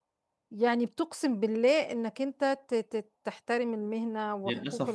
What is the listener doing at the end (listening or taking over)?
taking over